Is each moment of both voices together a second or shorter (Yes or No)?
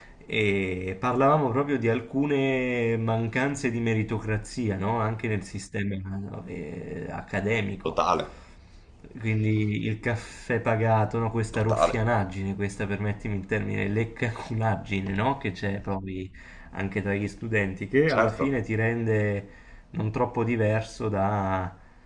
Yes